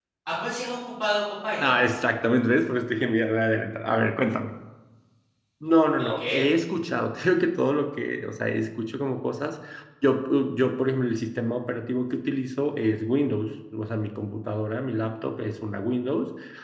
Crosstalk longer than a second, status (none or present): none